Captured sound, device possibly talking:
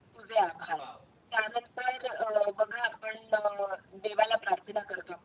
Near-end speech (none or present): present